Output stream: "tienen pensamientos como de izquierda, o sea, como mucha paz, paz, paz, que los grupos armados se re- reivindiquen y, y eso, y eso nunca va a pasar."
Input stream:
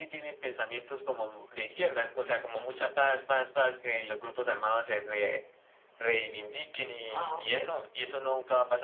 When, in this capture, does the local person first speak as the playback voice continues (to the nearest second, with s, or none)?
7 s